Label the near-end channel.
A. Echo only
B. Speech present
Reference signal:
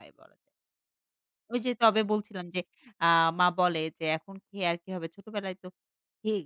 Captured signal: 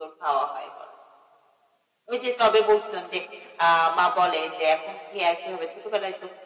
A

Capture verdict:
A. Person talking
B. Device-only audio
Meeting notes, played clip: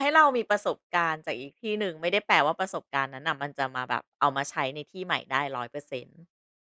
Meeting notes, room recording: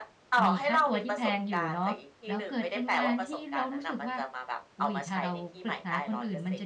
A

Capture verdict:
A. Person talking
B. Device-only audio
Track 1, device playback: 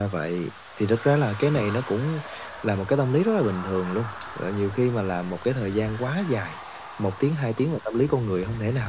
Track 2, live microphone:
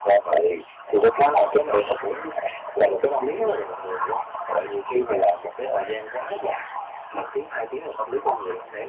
B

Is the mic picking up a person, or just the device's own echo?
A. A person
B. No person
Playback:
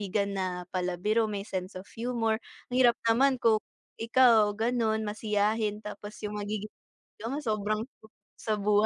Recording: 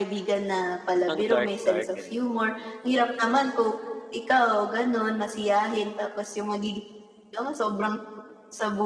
A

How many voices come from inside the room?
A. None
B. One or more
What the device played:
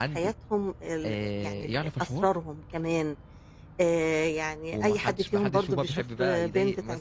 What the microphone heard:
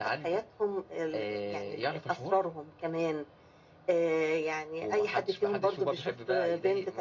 A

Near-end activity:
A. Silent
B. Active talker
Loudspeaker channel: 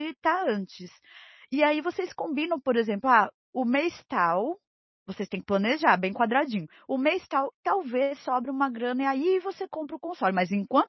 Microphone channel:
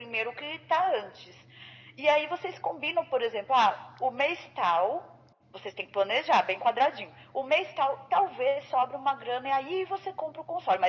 A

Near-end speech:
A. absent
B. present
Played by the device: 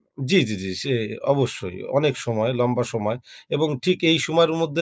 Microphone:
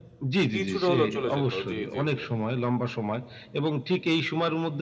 B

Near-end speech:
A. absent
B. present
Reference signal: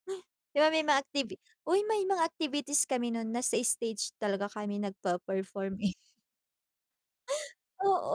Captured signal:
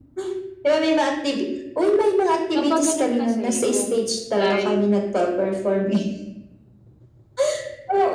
B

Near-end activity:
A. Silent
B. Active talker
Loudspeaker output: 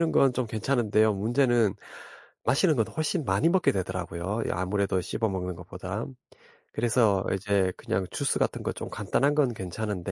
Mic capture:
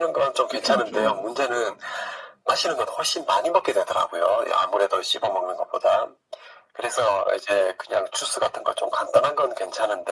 B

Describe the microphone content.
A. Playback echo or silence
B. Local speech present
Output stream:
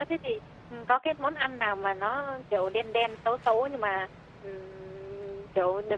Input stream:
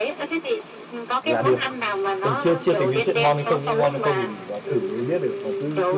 B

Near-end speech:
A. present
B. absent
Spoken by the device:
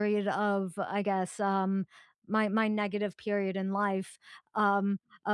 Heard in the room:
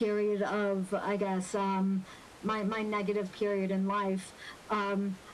B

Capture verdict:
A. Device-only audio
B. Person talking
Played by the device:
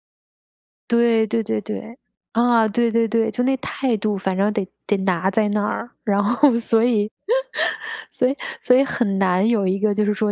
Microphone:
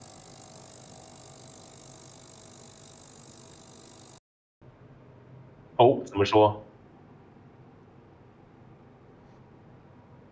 B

